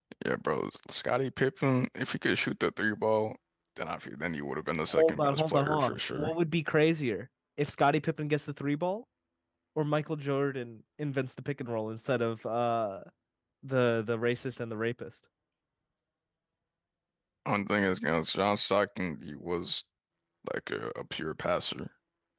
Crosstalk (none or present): present